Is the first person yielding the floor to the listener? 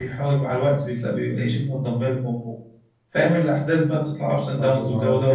Yes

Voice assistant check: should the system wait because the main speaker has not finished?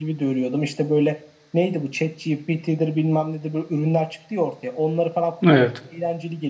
Yes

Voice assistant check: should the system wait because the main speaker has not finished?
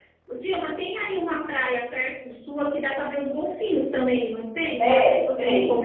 No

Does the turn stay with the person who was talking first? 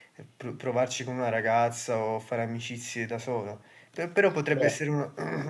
Yes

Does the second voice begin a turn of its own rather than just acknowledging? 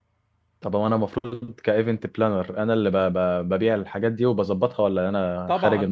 Yes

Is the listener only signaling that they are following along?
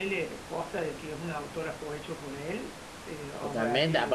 No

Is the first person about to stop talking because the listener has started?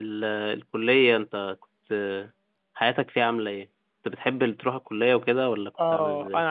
Yes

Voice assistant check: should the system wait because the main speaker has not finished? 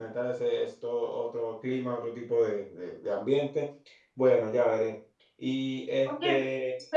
No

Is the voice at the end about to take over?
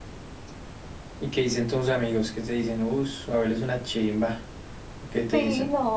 Yes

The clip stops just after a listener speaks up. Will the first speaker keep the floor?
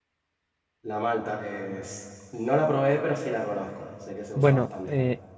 No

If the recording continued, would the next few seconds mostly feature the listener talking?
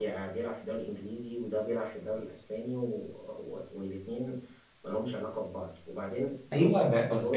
Yes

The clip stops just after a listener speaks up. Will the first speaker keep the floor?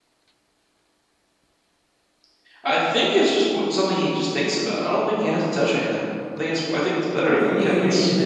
No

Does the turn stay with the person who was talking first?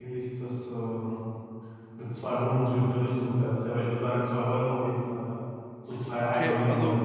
No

